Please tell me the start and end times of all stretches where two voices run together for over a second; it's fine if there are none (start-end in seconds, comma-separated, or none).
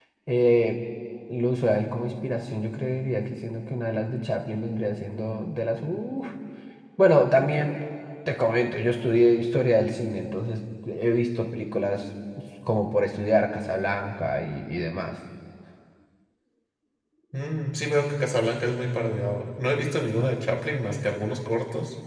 none